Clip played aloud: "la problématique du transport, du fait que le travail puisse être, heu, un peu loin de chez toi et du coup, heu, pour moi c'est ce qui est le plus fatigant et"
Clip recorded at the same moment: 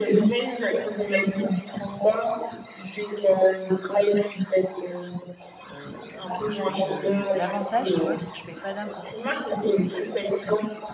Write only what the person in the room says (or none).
heu et je je l'avantage tu vois, c'est que je paye pas d'impôts, quoi.